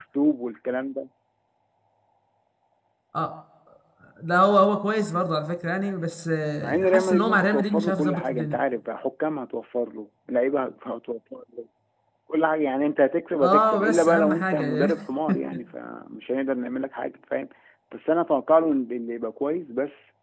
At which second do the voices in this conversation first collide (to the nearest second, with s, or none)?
7 s